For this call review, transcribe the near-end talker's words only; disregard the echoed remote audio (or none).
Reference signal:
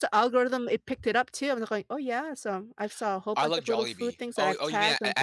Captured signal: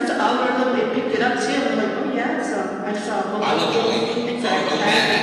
none